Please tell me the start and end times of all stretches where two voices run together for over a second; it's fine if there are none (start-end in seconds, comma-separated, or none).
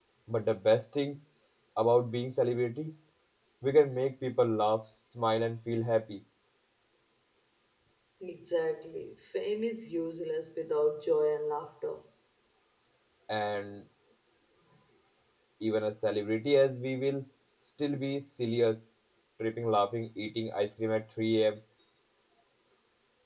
none